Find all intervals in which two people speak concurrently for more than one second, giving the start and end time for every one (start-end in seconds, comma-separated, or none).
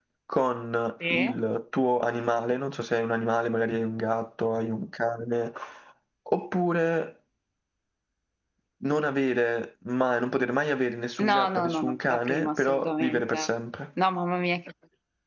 11.2-13.4